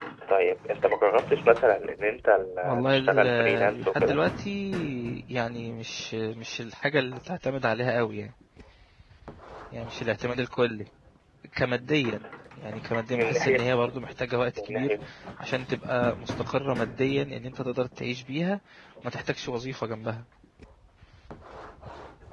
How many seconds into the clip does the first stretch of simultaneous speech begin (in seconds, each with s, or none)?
2.6 s